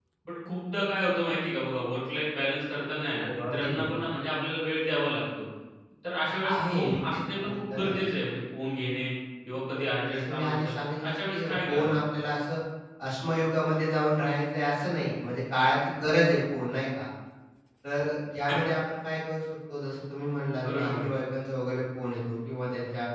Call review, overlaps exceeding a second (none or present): present